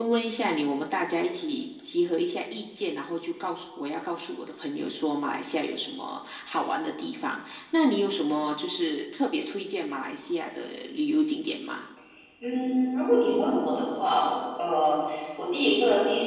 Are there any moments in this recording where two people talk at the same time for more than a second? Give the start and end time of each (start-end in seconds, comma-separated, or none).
none